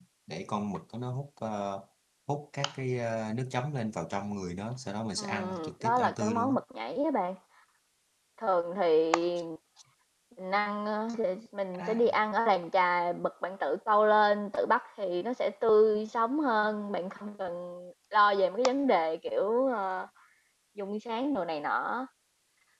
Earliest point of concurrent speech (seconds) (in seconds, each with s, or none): 5.2 s